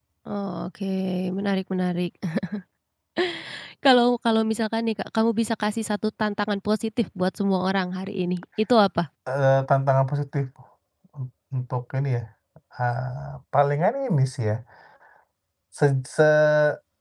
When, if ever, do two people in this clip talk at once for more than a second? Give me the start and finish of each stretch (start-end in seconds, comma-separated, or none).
none